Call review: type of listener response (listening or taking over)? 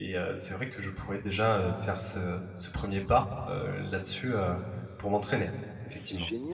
taking over